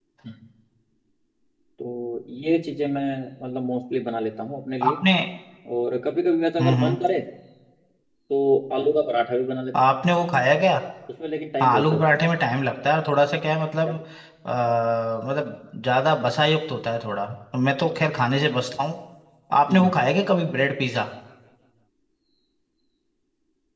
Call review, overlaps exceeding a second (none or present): none